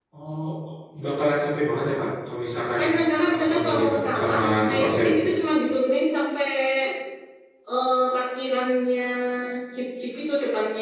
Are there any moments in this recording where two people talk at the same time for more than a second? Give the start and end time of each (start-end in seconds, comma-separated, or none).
3.2-5.2